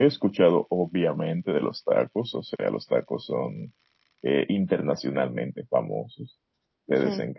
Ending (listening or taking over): listening